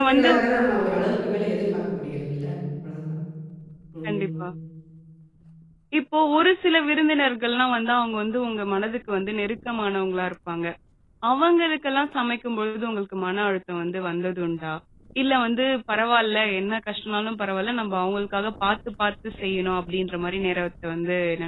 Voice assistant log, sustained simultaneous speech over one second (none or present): none